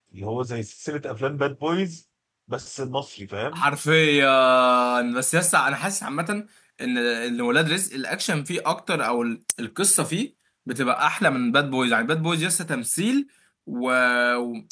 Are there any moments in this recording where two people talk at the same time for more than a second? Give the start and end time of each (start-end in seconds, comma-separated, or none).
none